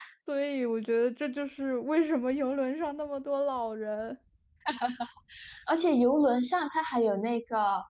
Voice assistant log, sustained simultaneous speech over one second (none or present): none